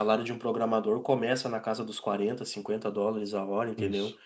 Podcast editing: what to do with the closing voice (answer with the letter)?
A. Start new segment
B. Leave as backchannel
B